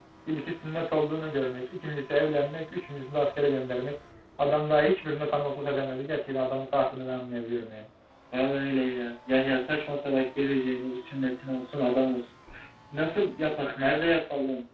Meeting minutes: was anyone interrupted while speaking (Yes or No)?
No